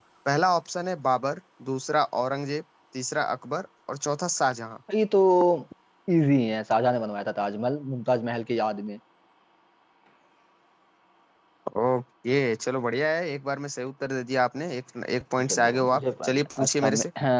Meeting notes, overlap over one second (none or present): present